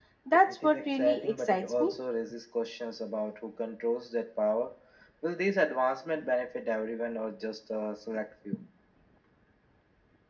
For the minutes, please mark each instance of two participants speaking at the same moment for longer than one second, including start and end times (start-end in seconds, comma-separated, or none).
0.6-2.0